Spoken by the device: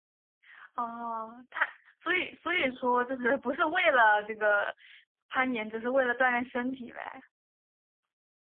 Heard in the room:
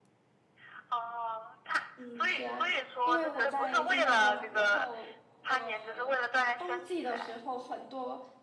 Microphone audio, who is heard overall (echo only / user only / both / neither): both